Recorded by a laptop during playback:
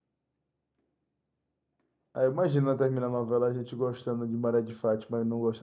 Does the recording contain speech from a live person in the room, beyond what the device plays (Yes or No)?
Yes